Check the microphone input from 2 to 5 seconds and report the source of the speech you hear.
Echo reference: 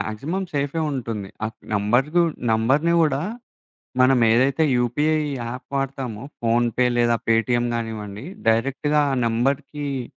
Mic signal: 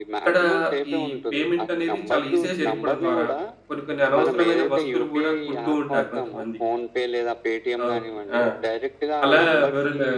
both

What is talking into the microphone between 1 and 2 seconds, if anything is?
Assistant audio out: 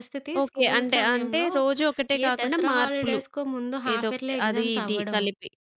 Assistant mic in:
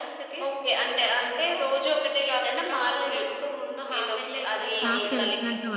echo only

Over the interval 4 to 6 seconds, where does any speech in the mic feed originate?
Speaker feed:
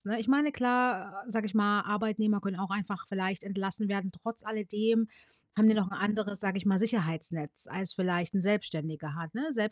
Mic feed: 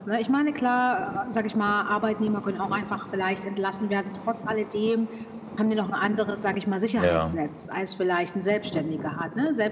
echo only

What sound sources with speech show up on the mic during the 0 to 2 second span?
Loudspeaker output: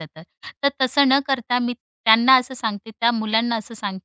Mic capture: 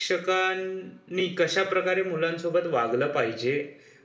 user only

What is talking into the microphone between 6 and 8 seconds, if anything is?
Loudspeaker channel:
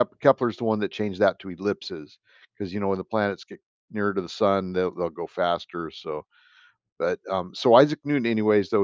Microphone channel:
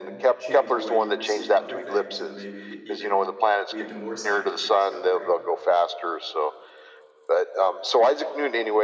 echo only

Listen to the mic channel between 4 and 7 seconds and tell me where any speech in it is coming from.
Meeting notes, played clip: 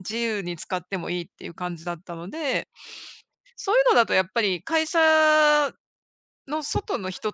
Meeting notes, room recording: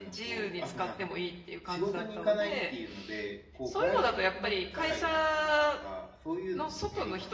both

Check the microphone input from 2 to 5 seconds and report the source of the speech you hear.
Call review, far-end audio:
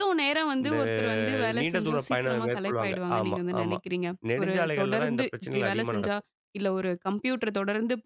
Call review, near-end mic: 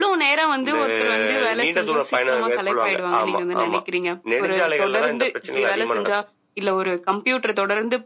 echo only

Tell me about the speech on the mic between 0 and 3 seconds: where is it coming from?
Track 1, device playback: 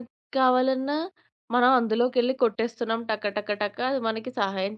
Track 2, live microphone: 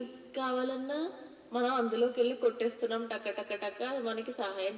echo only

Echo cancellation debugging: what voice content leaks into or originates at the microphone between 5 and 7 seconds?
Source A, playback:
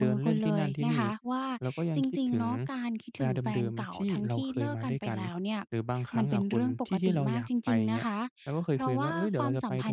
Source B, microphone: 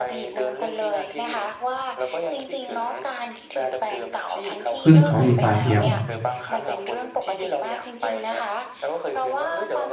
both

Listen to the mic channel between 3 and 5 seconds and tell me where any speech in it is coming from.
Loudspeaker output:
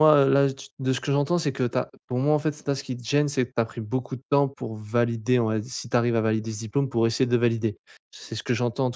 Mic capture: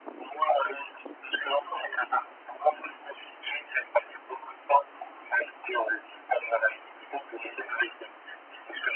echo only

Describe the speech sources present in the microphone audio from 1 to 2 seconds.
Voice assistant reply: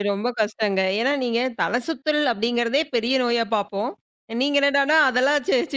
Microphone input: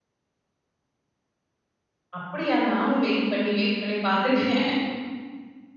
neither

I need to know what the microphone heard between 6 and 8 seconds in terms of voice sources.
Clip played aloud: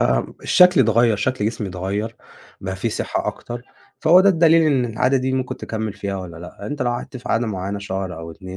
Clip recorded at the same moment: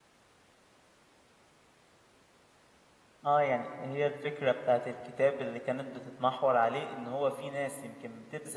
user only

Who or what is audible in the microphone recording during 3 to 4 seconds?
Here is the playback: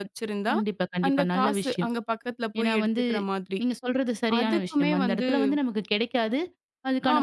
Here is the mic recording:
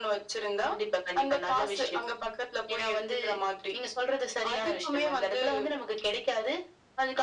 echo only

